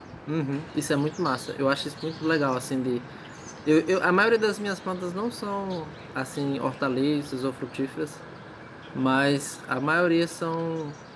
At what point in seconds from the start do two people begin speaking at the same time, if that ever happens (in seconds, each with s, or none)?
none